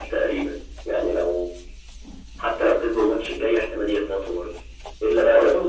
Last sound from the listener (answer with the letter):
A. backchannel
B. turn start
A